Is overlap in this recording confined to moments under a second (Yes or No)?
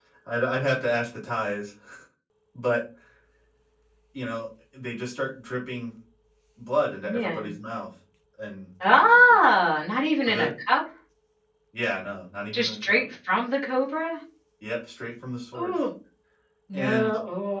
Yes